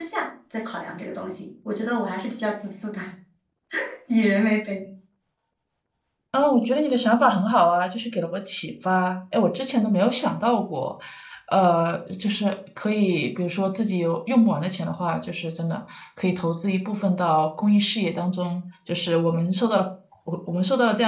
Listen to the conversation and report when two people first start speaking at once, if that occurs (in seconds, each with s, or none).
none